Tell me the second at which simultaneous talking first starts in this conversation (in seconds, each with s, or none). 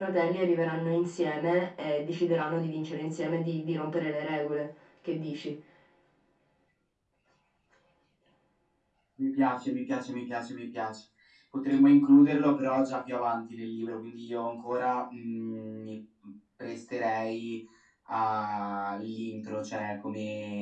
none